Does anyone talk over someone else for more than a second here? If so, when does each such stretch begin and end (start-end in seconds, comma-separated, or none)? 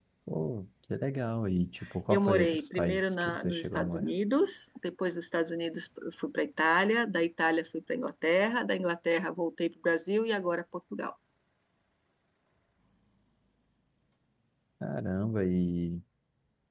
2.1-4.1